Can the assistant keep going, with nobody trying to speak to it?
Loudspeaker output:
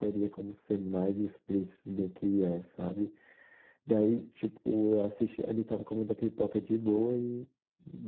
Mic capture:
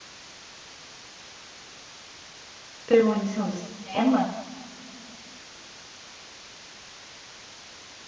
No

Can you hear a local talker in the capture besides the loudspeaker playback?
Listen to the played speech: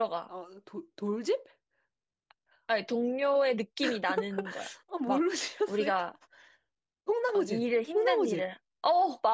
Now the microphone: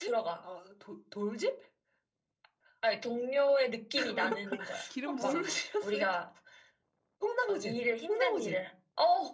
Yes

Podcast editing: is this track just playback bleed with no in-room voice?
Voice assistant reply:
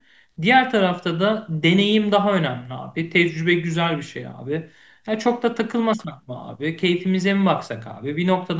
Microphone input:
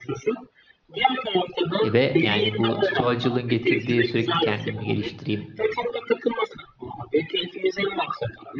No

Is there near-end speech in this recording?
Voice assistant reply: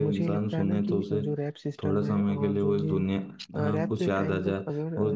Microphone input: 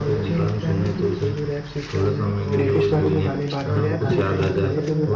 Yes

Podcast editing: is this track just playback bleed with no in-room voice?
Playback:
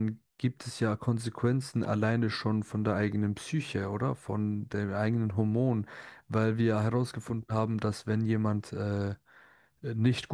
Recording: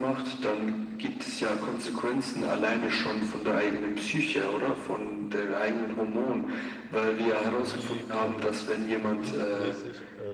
No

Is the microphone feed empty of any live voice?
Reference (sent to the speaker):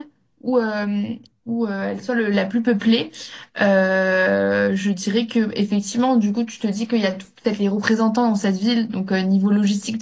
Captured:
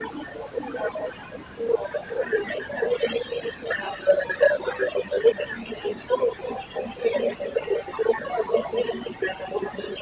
Yes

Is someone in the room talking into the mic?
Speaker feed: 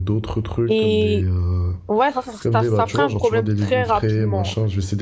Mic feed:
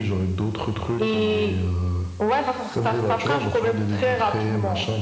No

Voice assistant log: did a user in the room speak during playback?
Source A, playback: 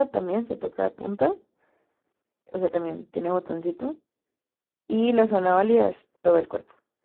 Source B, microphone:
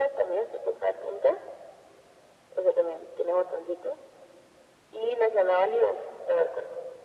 No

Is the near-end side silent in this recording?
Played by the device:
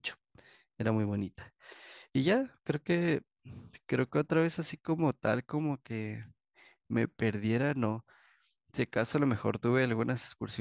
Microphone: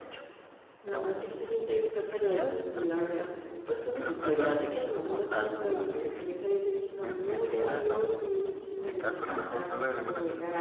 No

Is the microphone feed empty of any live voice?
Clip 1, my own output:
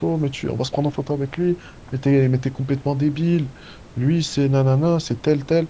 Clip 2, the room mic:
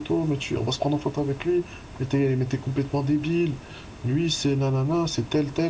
Yes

